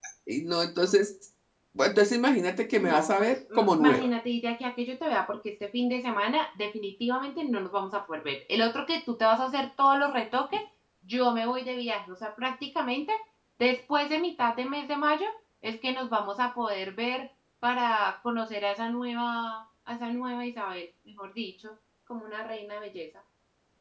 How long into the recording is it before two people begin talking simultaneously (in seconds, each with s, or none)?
2.8 s